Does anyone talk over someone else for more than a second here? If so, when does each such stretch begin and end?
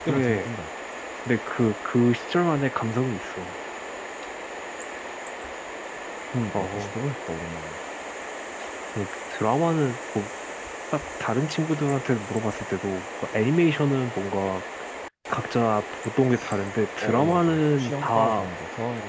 17.0-18.5

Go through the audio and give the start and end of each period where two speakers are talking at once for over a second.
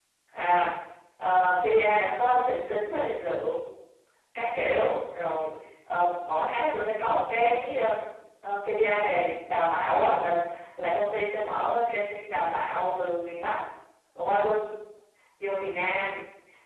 none

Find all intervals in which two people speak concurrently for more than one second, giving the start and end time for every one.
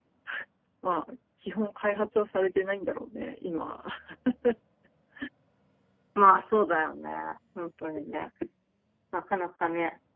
none

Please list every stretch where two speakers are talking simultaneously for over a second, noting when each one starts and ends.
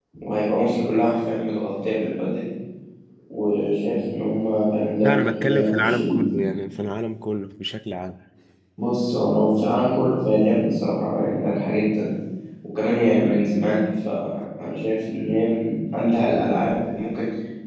5.0-6.2

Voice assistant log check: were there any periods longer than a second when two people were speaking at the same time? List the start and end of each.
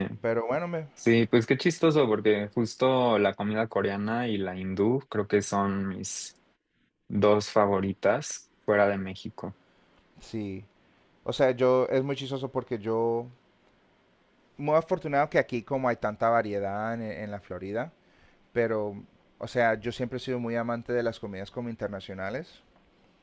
none

